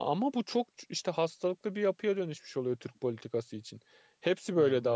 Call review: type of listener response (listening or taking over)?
listening